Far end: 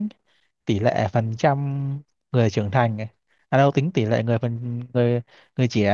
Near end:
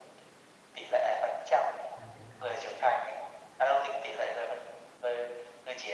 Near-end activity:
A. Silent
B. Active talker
B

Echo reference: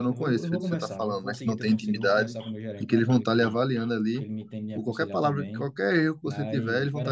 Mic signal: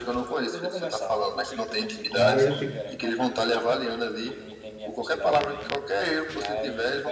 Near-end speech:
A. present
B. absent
A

